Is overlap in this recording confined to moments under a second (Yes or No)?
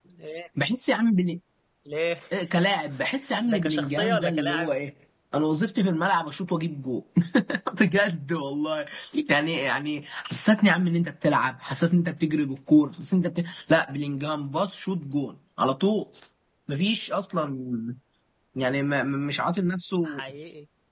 No